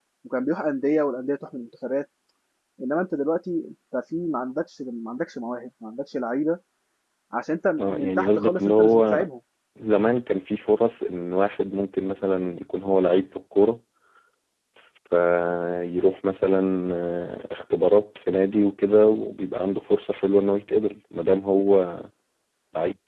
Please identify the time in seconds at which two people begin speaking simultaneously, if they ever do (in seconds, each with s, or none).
7.8 s